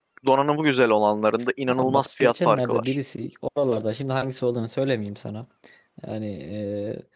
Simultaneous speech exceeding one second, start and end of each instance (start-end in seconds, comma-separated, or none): 1.7-3.0